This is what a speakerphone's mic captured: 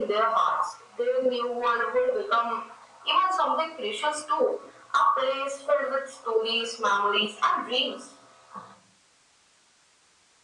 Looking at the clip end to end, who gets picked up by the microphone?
echo only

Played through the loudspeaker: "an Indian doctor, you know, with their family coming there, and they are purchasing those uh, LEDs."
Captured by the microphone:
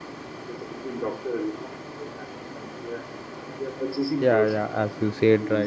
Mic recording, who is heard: both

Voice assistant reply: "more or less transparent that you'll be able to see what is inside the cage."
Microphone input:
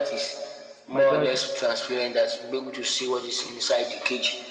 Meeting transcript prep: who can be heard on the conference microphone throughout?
both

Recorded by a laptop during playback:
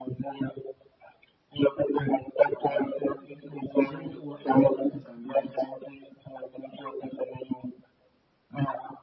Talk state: both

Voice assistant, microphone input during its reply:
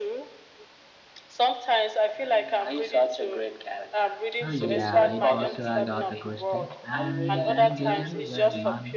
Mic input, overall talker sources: both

